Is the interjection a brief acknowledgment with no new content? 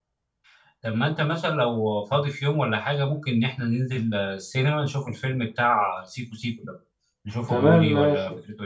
No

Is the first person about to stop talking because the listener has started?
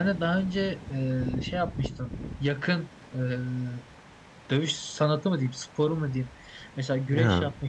No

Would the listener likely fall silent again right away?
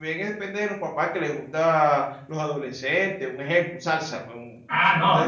No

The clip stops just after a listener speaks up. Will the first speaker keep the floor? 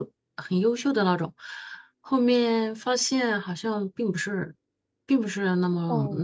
No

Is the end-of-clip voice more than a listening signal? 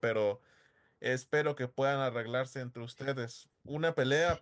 No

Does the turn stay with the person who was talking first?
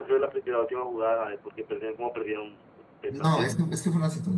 No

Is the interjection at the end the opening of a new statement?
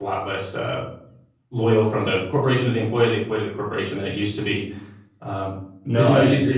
Yes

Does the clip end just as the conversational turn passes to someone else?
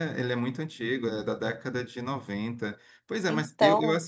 No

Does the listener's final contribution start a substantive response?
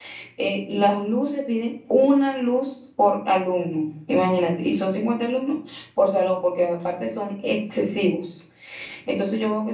No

